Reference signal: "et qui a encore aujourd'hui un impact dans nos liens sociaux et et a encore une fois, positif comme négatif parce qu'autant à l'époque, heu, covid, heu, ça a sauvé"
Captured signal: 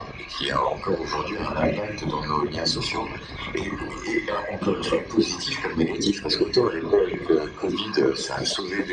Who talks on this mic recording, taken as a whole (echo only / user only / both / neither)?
echo only